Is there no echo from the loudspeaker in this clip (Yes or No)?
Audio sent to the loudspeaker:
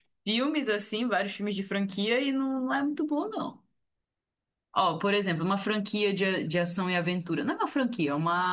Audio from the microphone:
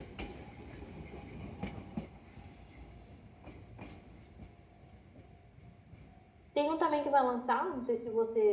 Yes